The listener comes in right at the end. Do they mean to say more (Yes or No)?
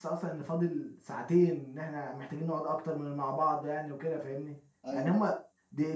No